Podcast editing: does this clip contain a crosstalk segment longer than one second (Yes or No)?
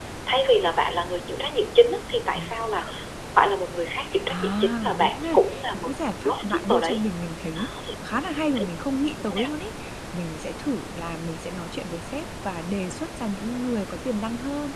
Yes